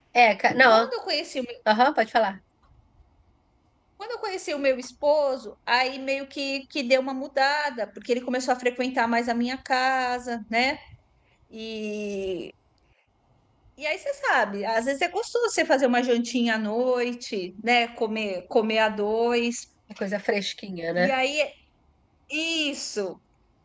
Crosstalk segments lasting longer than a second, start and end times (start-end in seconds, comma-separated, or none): none